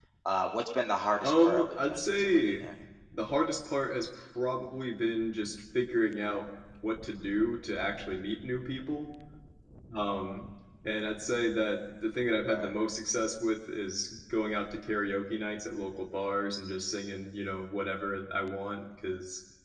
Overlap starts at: 1 s

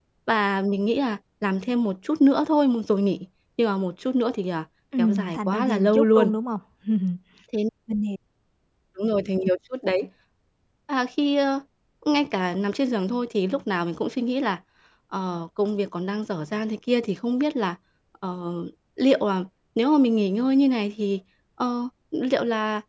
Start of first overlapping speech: 5 s

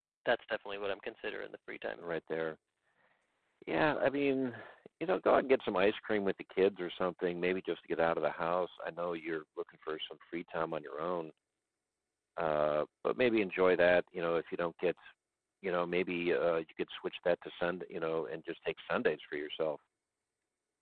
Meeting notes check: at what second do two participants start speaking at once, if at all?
none

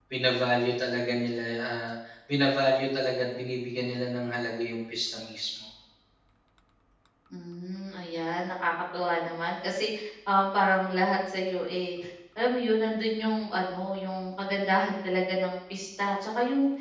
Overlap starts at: none

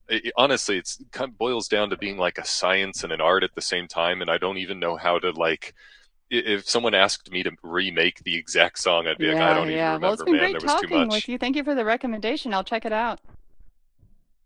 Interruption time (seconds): 9 s

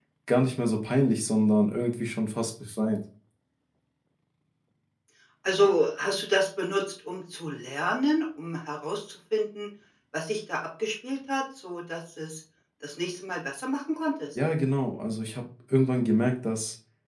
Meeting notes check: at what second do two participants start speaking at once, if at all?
none

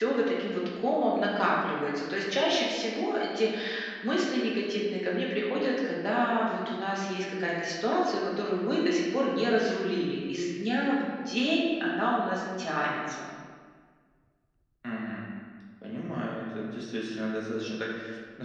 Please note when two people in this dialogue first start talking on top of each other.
none

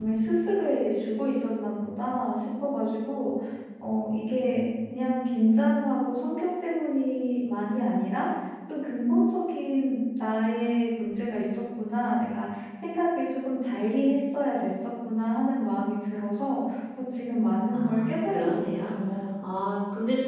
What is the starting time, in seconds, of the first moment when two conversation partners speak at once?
18 s

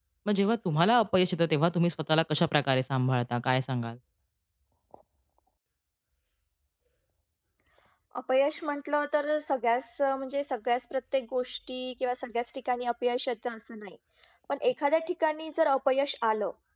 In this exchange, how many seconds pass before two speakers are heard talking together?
none

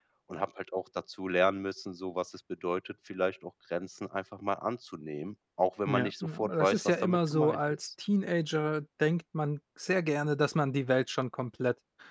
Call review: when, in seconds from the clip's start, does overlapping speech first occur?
6 s

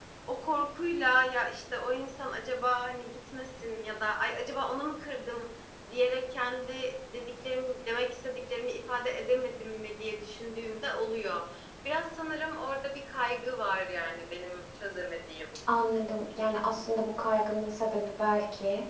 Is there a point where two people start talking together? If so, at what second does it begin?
none

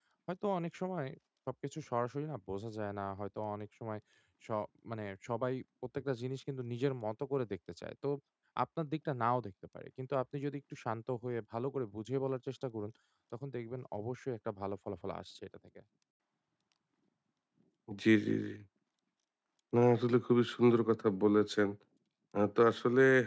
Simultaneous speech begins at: none

